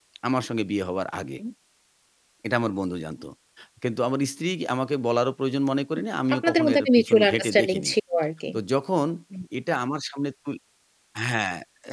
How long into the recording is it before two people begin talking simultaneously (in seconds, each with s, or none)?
6.3 s